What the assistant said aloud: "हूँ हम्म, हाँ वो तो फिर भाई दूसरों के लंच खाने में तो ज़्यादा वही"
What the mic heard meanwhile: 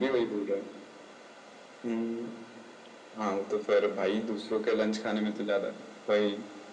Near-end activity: none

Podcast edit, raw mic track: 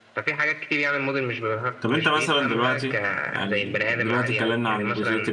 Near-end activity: present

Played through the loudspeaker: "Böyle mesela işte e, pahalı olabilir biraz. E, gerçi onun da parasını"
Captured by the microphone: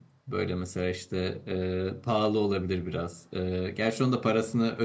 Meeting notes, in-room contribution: none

